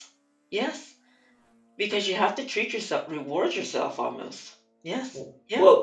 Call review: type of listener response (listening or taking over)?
taking over